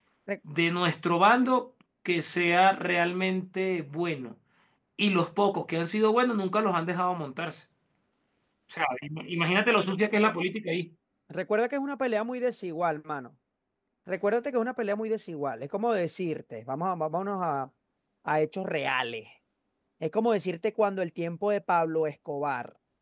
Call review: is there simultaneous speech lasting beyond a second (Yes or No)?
No